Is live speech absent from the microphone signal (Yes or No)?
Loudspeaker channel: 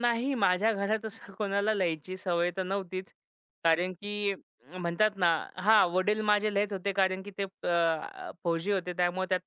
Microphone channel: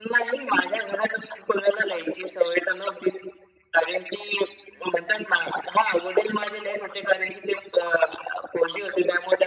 Yes